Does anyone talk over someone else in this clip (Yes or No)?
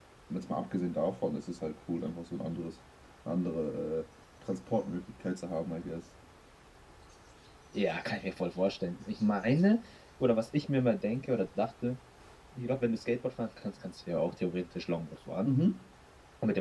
No